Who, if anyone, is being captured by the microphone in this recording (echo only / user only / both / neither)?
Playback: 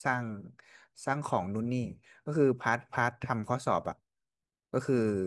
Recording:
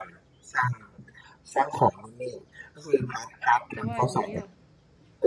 both